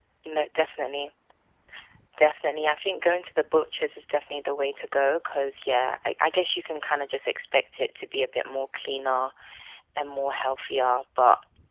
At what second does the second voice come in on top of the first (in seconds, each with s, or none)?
none